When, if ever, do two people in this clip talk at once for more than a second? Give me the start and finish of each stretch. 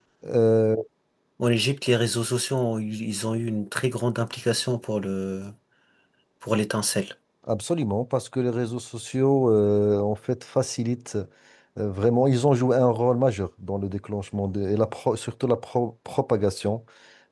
none

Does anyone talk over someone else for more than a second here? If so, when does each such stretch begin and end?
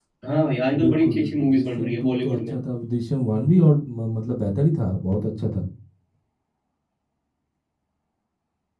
0.8-2.5

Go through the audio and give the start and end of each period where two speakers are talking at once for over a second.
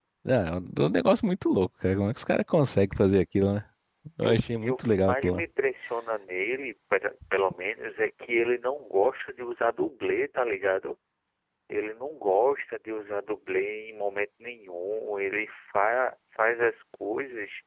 4.2-5.4

